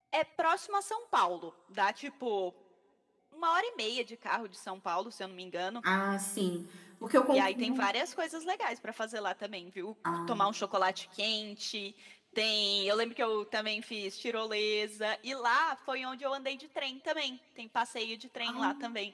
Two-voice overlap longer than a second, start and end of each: none

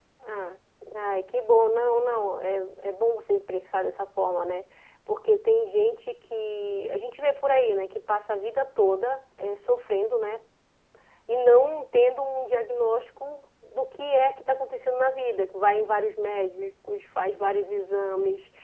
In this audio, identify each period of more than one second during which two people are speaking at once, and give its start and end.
none

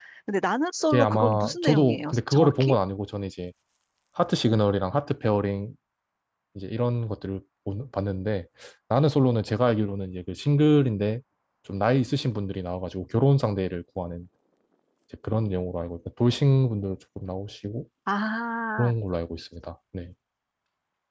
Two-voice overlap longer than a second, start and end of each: 0.9-2.8

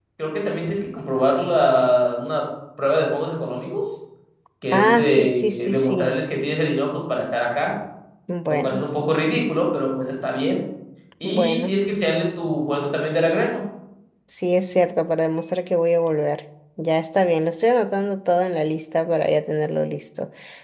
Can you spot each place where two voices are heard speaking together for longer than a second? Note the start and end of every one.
4.7-6.2

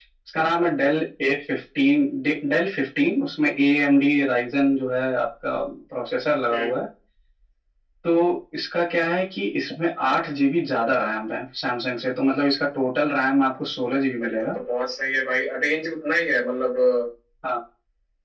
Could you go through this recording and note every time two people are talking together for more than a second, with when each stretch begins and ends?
none

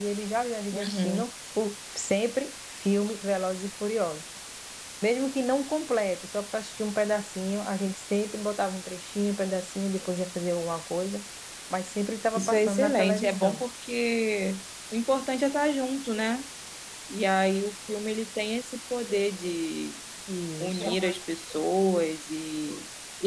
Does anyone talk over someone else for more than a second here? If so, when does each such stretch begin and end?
12.3-13.6

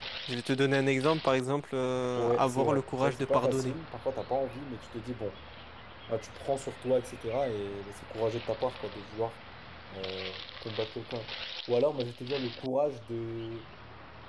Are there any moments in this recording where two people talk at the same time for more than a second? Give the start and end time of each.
2.2-3.8

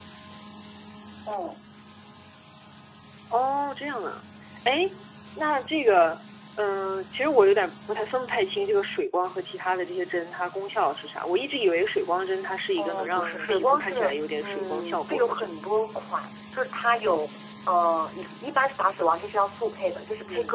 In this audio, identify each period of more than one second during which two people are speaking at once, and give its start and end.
12.8-15.6

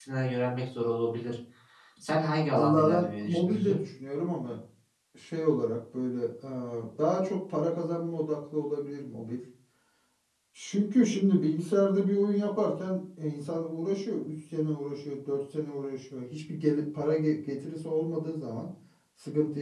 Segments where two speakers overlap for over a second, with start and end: 2.6-3.8

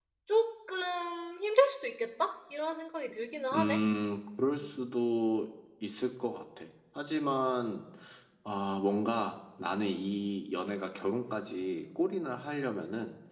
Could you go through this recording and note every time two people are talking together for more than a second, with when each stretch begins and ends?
none

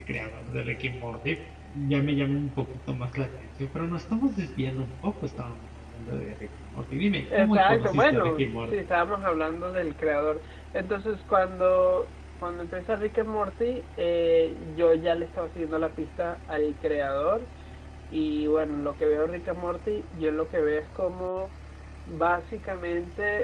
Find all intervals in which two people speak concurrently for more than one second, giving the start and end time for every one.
7.3-8.7

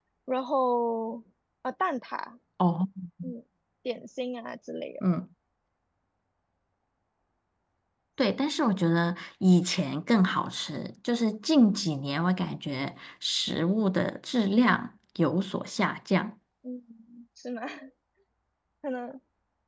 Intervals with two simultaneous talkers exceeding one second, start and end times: none

